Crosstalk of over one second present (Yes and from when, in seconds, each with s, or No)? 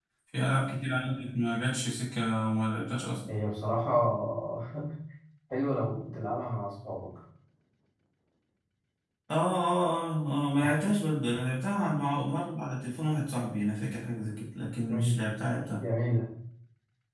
No